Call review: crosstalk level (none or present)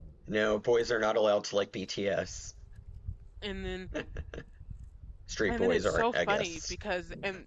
present